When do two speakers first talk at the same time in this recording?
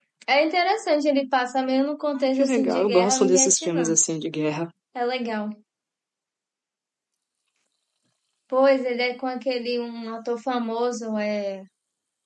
2.2 s

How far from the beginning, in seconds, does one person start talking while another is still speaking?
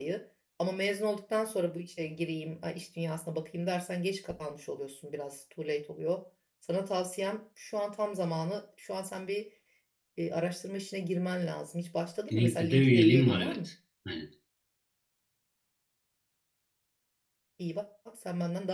12.3 s

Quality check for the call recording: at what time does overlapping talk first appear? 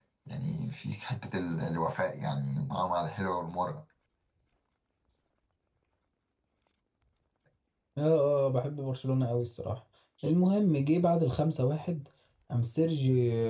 none

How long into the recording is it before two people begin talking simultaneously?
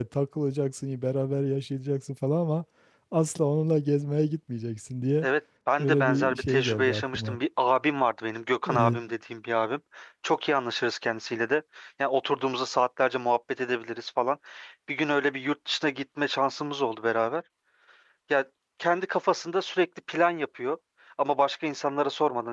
5.8 s

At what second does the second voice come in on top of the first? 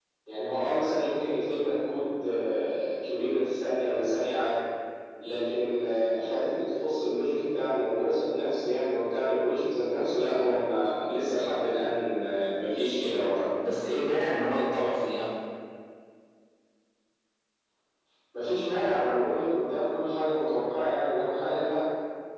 none

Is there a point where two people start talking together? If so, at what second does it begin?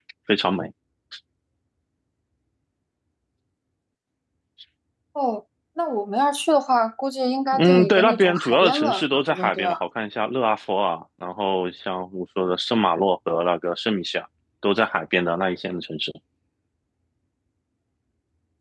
7.5 s

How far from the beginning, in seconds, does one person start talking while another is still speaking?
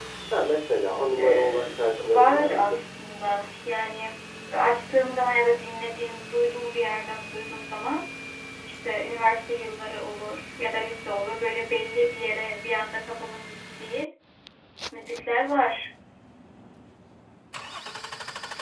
1.2 s

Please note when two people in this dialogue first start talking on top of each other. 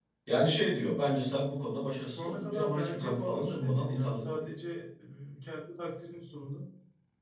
2.1 s

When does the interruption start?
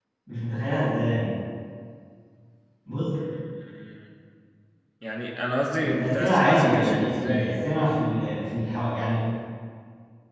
5.8 s

